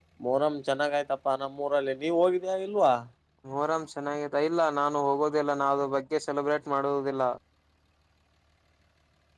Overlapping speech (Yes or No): No